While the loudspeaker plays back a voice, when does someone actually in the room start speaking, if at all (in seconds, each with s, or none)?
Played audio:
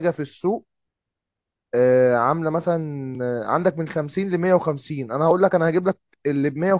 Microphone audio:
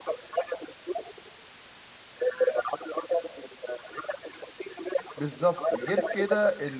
5.2 s